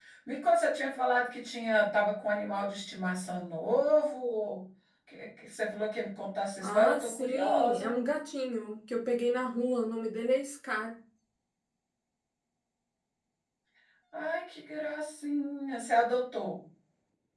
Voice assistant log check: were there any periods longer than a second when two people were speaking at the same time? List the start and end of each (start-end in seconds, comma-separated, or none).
6.6-8.0